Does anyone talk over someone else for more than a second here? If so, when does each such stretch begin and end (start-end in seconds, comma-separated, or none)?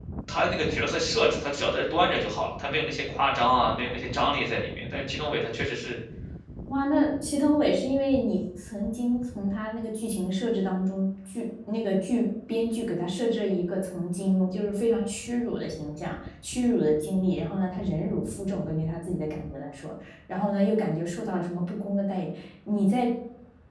none